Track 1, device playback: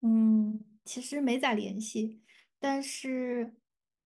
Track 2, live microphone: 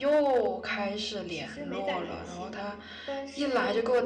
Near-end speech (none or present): present